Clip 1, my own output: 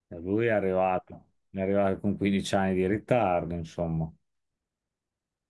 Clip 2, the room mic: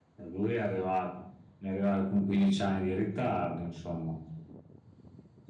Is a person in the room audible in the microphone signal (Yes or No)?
No